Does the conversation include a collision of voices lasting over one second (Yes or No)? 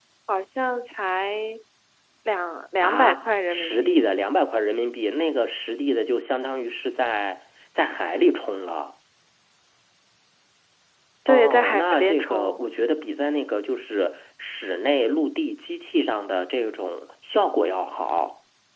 Yes